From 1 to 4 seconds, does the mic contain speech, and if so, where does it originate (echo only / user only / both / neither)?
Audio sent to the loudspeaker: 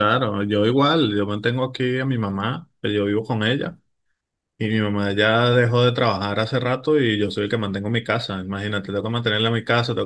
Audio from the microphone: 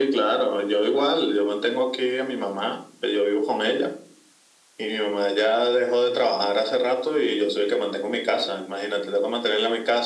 echo only